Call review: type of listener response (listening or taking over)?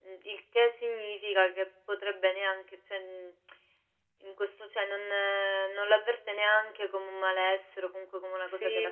taking over